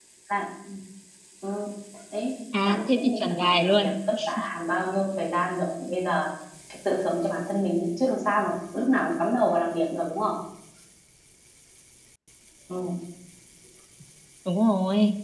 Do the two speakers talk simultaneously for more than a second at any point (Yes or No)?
Yes